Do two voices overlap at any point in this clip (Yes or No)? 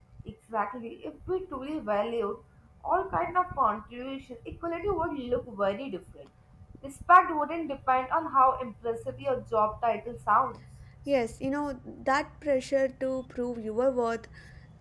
No